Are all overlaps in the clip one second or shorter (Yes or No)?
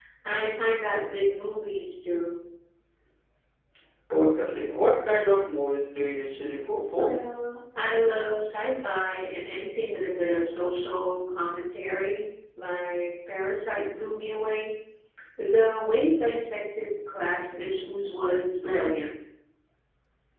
Yes